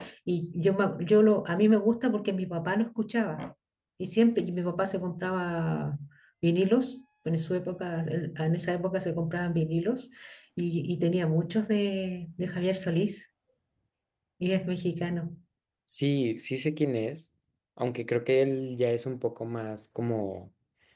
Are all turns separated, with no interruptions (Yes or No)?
Yes